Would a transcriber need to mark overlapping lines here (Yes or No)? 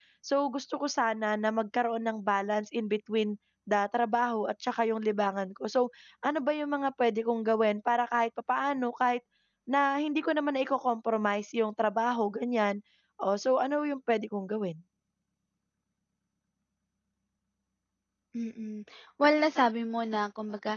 No